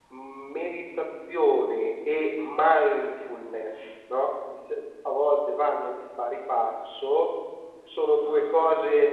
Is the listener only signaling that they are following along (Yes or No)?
Yes